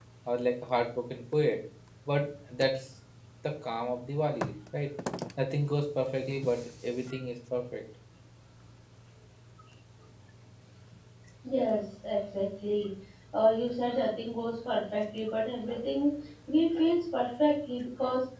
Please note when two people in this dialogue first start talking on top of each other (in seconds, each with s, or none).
none